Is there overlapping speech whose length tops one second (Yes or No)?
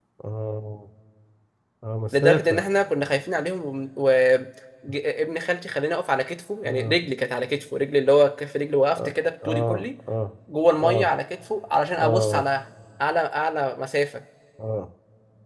No